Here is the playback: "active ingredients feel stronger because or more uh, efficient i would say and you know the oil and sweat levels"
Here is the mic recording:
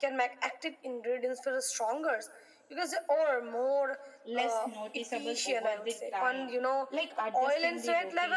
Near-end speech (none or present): present